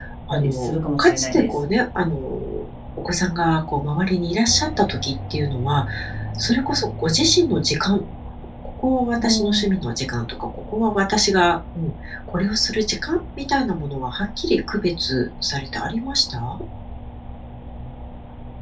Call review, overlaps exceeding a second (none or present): present